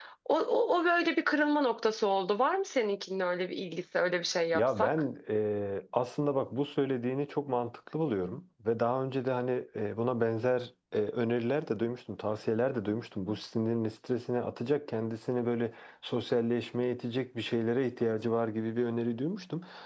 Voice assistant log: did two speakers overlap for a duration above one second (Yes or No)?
No